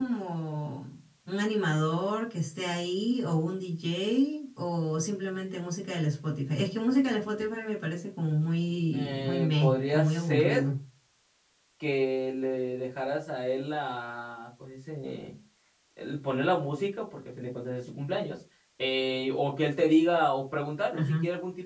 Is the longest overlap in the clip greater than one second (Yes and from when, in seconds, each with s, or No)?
Yes, from 8.9 s